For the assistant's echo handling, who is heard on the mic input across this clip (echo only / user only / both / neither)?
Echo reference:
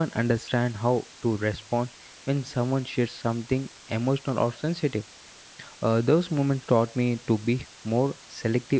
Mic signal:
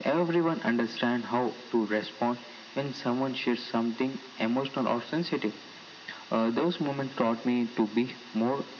echo only